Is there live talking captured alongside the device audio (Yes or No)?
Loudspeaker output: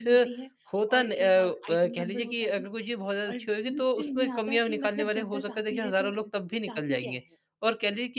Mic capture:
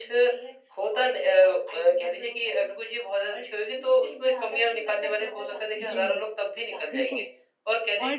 Yes